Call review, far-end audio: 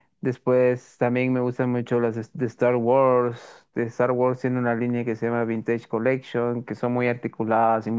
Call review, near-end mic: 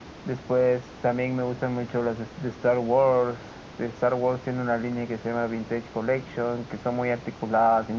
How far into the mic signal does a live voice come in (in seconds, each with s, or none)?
none